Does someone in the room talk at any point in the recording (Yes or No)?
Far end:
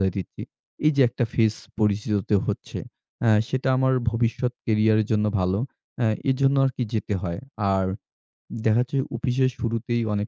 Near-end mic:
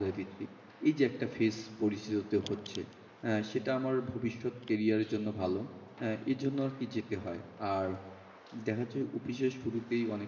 No